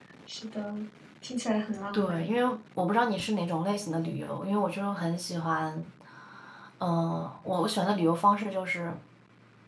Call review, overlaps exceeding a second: none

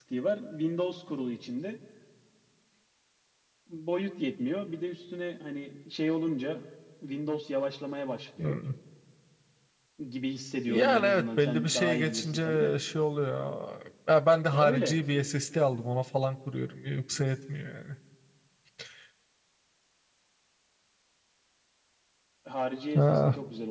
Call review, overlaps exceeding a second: present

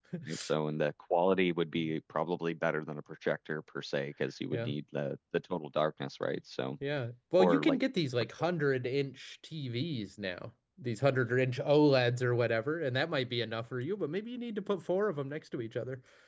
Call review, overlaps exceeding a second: none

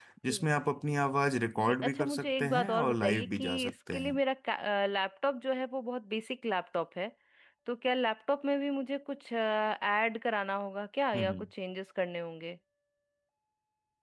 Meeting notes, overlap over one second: present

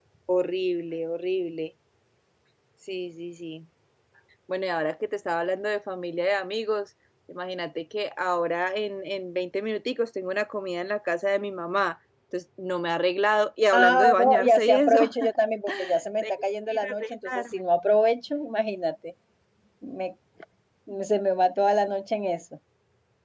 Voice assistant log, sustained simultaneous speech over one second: present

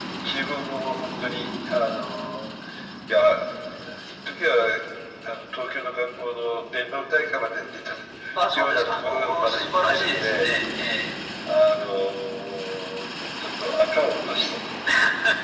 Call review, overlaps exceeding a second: present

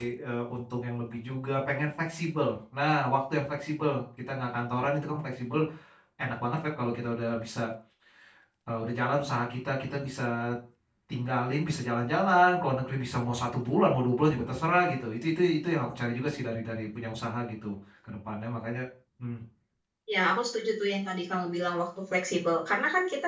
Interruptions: none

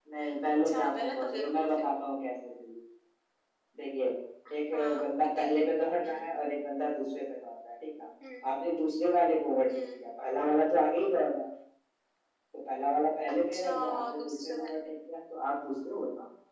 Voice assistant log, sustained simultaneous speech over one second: present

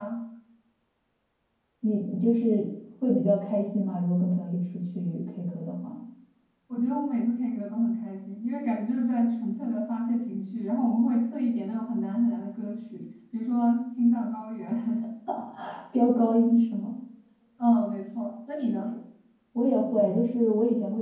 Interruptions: none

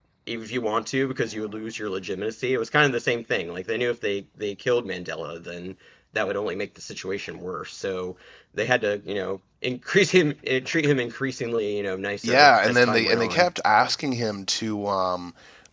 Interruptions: present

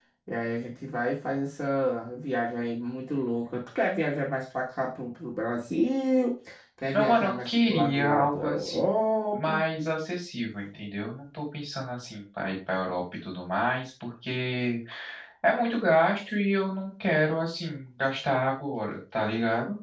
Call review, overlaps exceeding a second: present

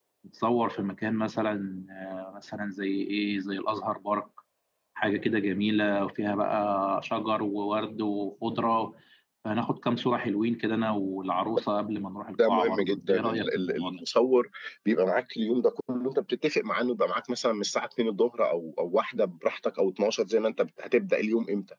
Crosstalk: present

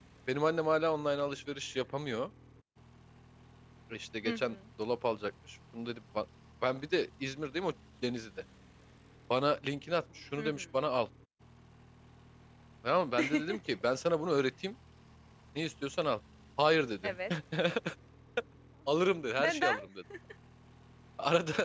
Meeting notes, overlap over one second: none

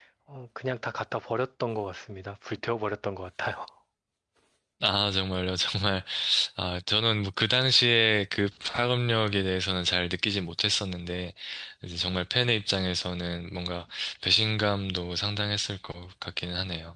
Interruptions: none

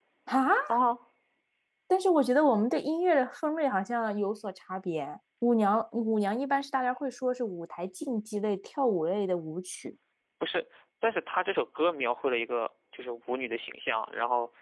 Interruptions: none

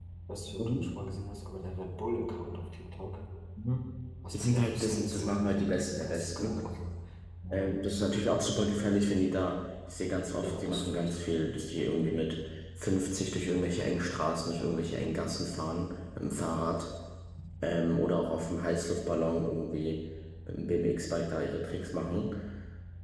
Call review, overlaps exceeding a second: present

